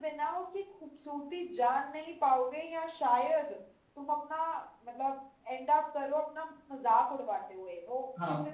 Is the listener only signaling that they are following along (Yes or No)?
No